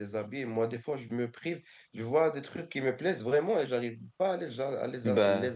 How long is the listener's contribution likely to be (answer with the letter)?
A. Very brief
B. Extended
A